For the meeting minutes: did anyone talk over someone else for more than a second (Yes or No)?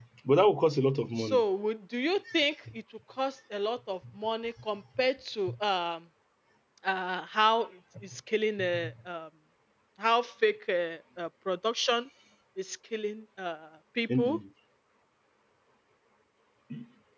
No